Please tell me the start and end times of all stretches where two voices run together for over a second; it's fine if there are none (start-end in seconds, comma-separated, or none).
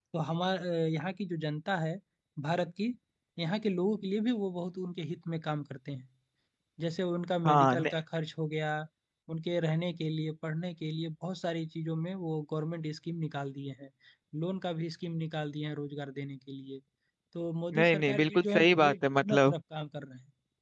17.8-19.5